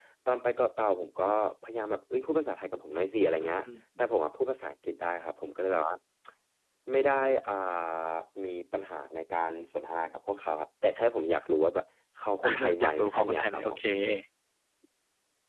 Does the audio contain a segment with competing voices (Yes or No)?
Yes